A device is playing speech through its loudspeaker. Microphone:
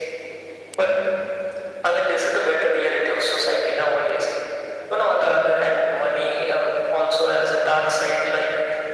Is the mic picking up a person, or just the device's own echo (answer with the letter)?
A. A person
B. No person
B